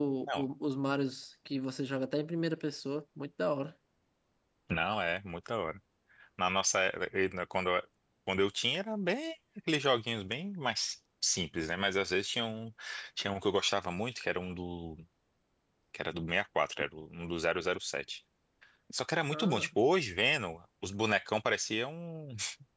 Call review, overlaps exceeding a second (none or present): none